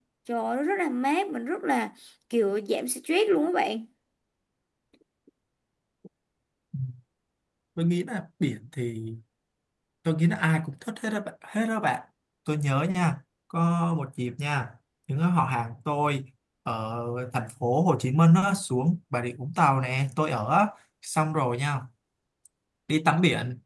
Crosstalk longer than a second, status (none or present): none